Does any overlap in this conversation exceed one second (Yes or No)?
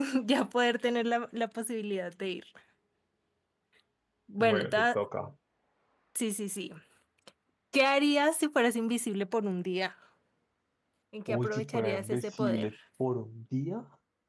Yes